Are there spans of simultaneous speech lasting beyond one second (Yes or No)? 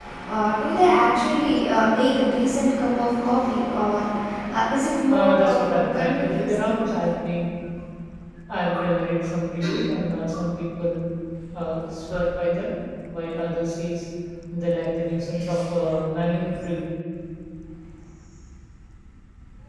Yes